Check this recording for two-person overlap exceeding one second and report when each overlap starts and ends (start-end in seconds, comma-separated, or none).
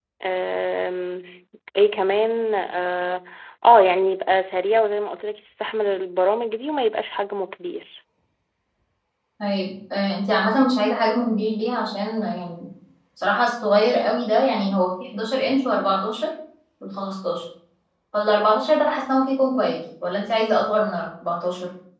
none